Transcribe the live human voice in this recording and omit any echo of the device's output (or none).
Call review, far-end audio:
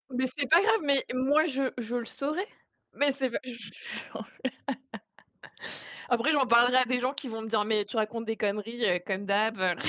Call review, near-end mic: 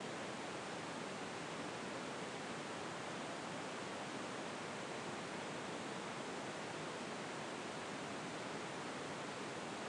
none